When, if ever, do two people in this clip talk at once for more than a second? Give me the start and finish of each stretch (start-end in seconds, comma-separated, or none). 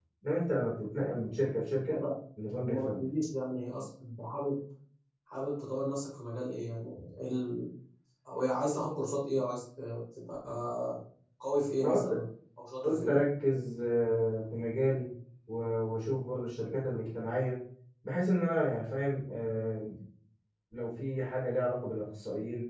none